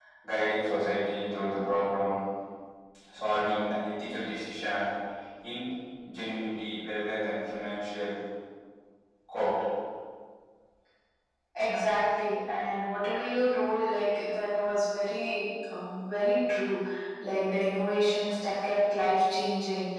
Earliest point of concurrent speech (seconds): none

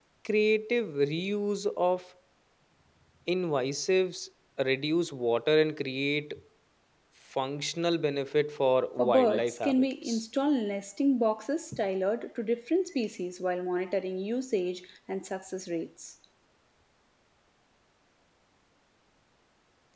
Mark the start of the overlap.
9 s

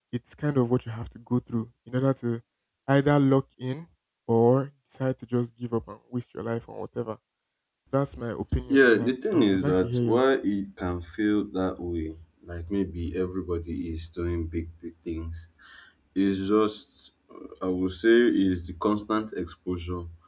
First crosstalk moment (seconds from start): 9 s

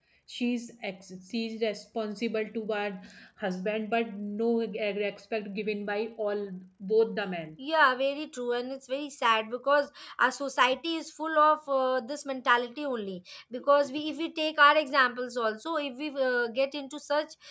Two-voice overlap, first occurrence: none

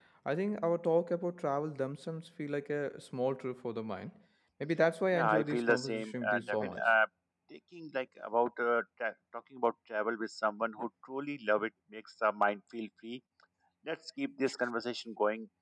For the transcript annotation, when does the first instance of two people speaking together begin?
5 s

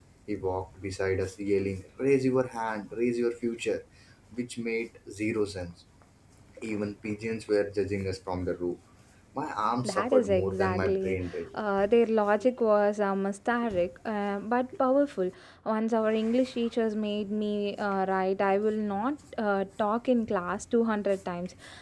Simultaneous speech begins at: 10 s

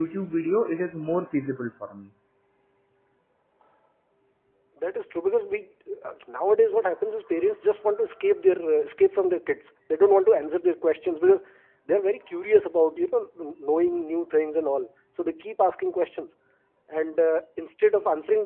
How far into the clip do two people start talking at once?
none

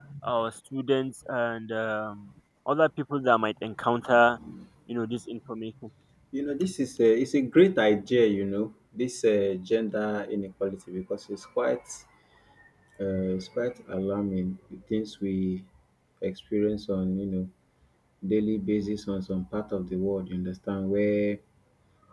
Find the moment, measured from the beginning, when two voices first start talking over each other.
none

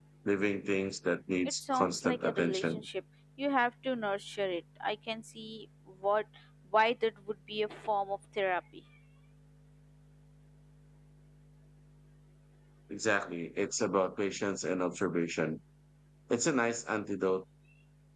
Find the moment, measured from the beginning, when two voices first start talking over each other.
2 s

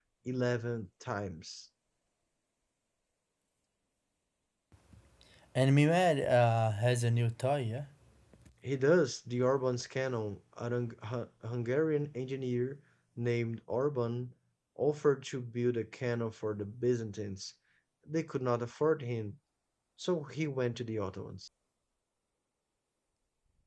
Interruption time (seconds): none

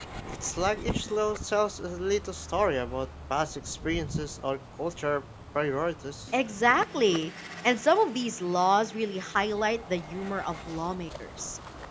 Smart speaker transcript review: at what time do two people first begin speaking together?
none

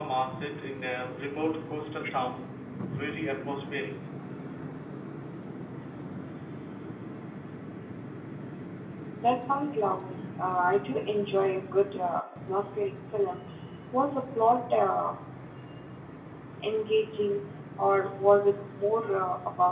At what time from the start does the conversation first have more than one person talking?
none

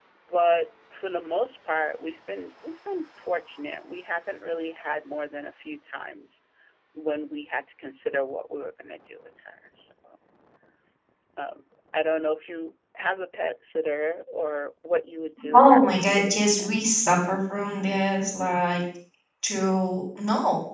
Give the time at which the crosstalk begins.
16 s

